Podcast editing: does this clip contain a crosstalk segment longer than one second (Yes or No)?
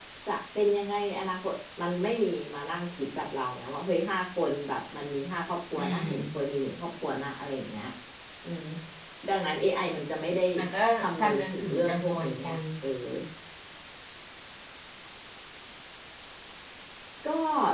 Yes